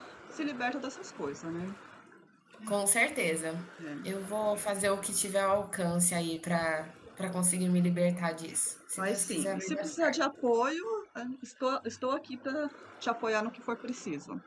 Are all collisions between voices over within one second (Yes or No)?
No